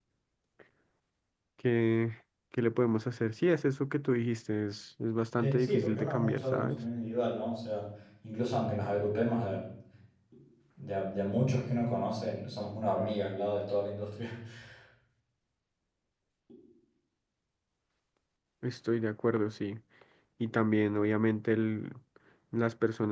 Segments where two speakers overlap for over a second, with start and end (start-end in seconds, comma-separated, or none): 5.4-6.8